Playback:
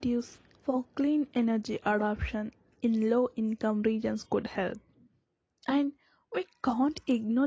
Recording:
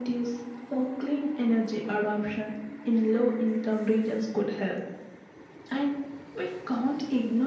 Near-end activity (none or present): none